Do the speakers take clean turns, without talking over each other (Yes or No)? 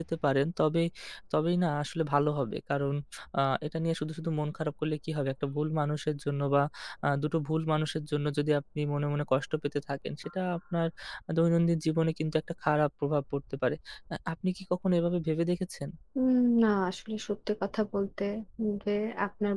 Yes